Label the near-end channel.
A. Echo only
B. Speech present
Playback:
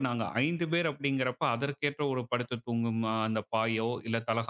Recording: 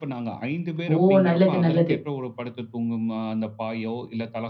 B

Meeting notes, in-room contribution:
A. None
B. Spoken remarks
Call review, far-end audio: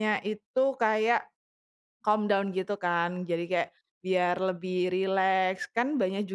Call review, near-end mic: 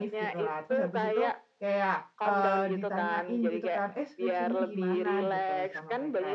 B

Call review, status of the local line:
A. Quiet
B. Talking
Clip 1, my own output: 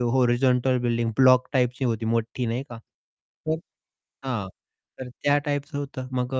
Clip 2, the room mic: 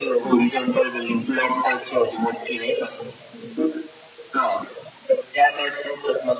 A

